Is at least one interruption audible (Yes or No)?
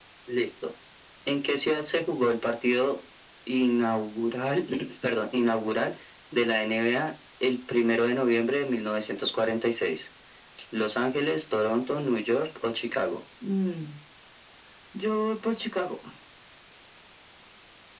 No